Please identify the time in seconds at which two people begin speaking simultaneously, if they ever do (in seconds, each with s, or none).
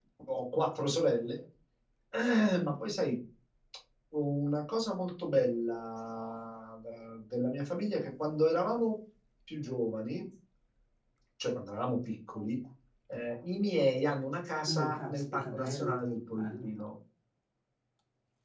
14.7 s